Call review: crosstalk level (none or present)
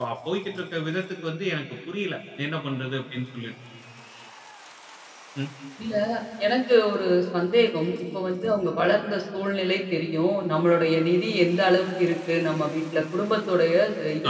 none